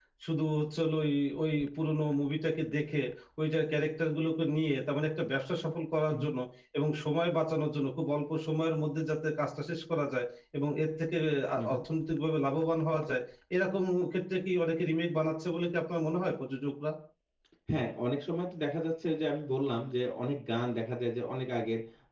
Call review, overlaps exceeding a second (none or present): none